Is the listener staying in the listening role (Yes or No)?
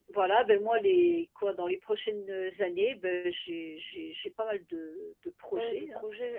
No